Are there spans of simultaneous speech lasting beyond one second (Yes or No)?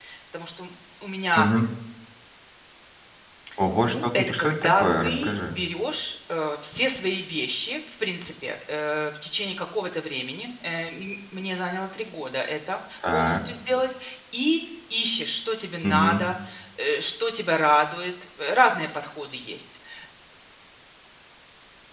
Yes